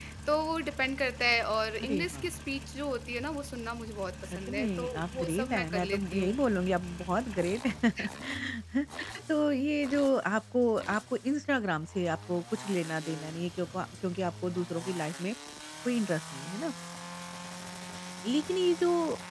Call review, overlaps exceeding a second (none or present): present